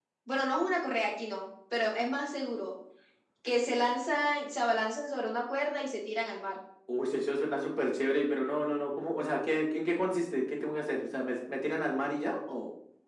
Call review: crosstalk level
none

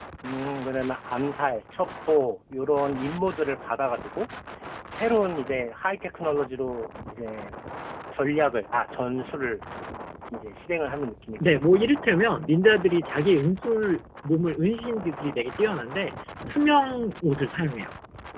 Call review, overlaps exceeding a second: none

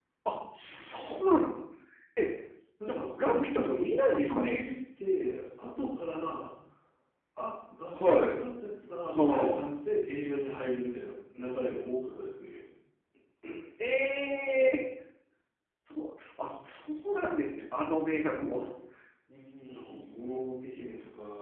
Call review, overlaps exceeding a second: present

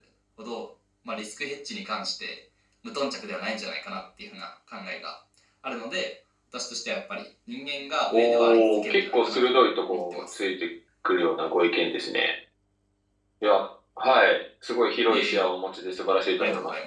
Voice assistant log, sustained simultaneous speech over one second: present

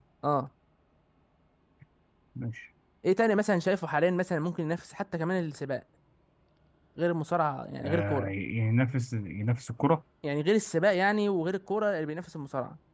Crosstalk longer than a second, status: none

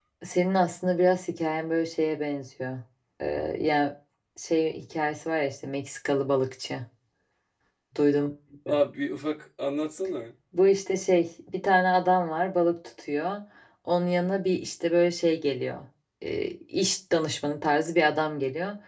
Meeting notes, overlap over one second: none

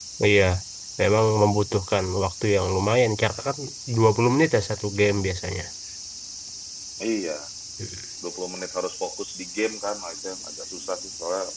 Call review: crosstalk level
none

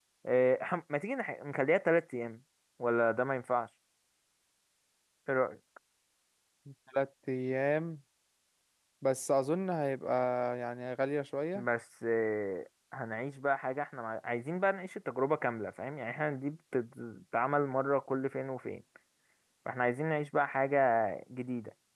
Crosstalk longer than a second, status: none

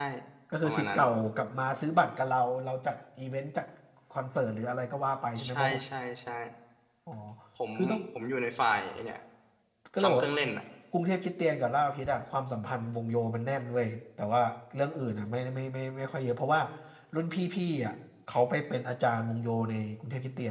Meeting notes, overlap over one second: none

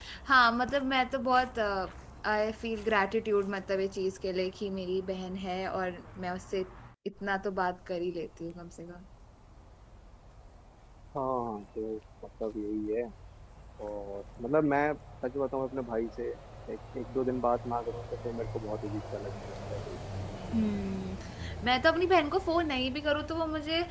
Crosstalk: none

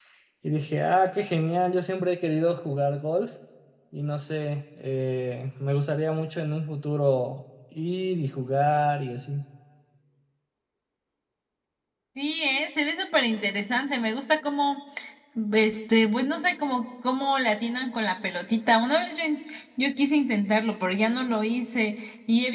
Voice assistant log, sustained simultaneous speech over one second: none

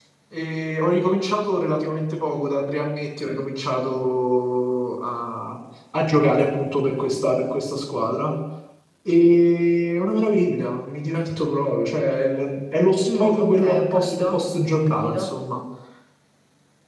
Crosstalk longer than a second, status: present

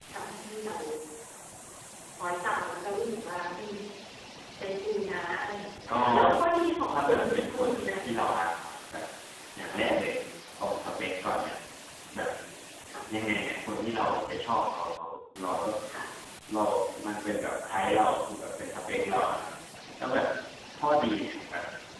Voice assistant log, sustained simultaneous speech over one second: present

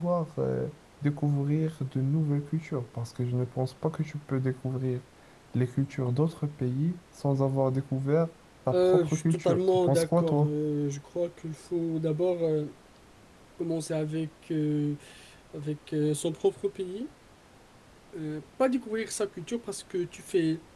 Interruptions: present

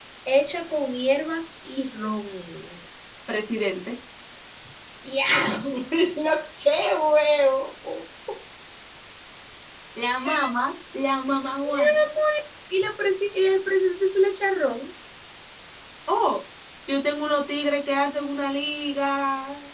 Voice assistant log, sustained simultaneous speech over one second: none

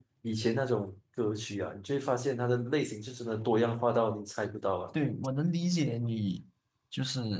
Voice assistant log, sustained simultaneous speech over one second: none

